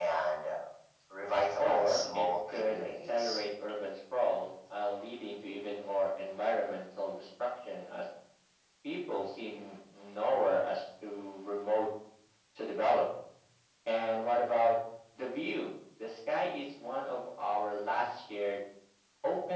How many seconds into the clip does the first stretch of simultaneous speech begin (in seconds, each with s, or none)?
1.6 s